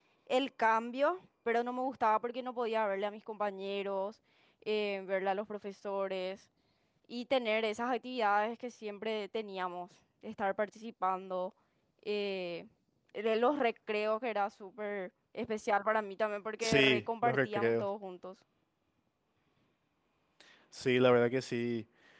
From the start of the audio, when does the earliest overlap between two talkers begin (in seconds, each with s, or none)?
16.6 s